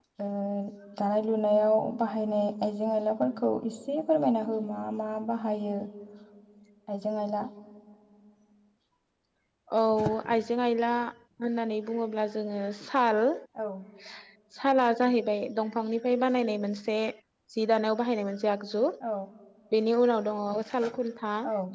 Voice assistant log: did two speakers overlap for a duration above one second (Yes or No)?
No